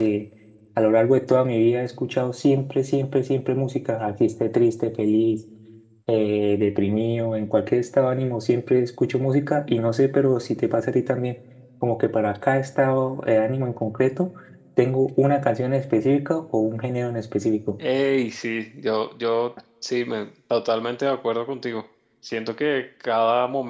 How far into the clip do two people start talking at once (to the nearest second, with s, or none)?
none